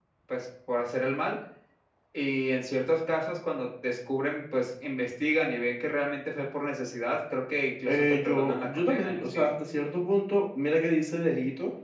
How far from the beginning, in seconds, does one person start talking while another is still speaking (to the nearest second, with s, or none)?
8 s